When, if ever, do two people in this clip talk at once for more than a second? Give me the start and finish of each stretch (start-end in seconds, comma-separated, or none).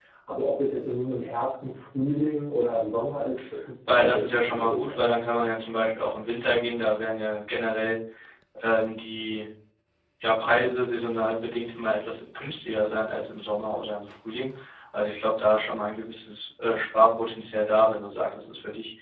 3.9-5.2